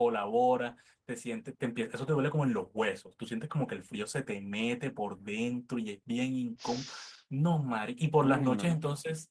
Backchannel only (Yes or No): Yes